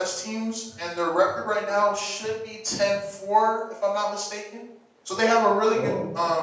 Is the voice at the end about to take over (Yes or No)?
No